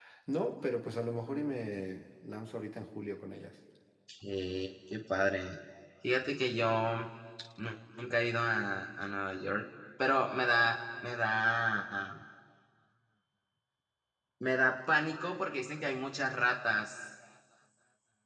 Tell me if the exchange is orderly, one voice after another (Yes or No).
Yes